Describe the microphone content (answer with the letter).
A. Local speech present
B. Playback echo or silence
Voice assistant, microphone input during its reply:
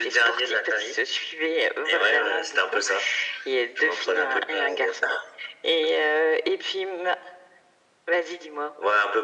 B